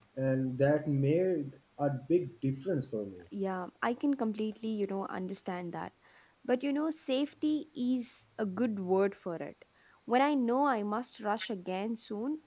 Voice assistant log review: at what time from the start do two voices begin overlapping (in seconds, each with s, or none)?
none